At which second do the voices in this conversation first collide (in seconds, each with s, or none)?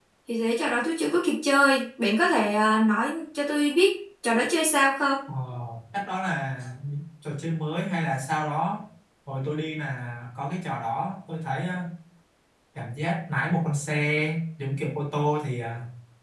none